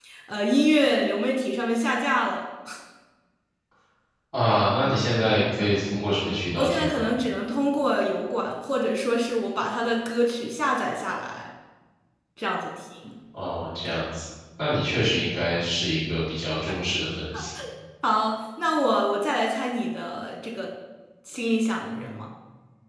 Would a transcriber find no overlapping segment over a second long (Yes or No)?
Yes